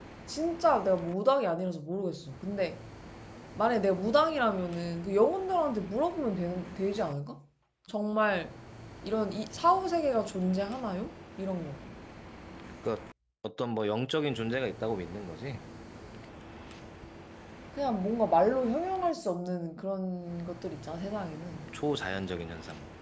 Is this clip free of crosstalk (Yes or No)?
Yes